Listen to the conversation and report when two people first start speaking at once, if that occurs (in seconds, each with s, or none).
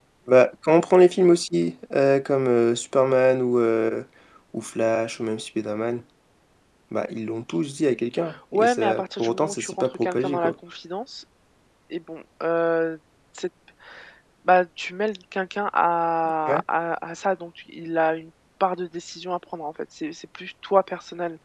8.5 s